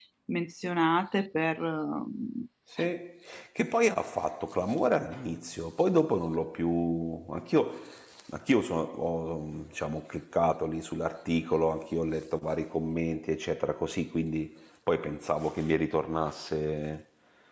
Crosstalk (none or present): none